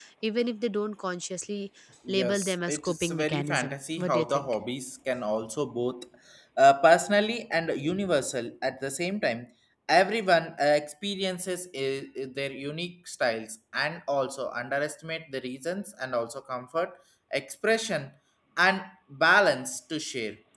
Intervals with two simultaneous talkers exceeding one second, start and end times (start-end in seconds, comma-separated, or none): 2.1-4.5